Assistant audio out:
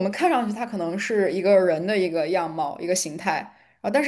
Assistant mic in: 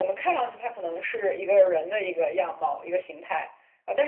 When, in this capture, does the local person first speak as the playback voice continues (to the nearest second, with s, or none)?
none